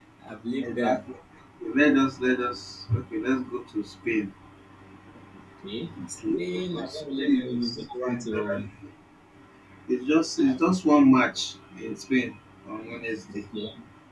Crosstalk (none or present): present